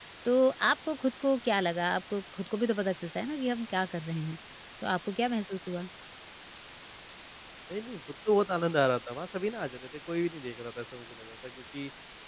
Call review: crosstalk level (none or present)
none